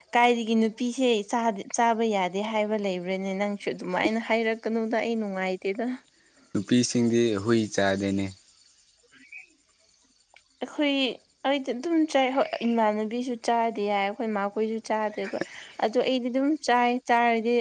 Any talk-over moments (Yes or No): No